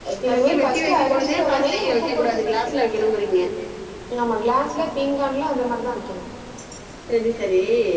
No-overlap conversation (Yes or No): No